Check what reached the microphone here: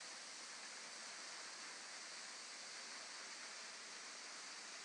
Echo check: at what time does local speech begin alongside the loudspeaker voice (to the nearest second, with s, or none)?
none